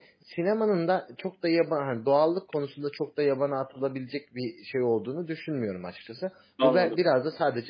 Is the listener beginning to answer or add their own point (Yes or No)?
No